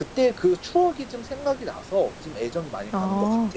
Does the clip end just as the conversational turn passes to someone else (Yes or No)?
Yes